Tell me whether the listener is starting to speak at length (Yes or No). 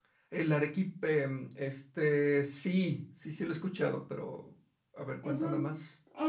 Yes